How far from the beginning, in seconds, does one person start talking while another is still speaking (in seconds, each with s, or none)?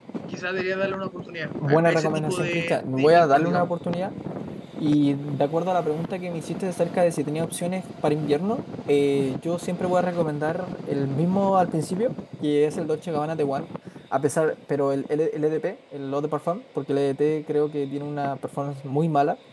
1.6 s